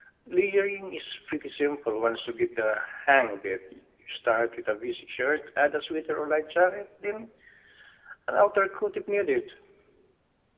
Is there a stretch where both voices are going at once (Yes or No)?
No